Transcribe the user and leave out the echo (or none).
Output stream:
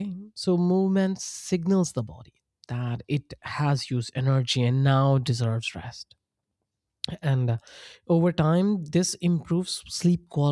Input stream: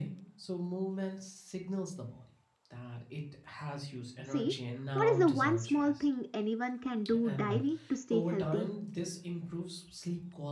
See, what is the one small thing anyone can do daily to stay healthy?